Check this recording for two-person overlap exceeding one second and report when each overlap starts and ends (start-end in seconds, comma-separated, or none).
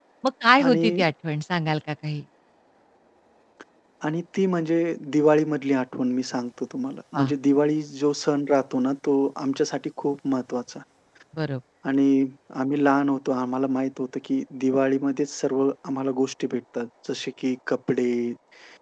none